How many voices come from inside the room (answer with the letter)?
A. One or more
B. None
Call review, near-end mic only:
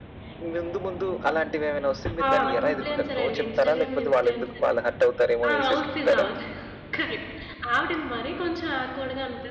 A